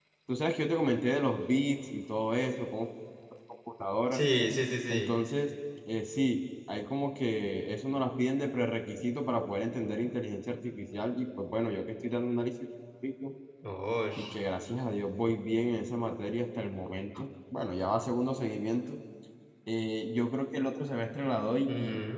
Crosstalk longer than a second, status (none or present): none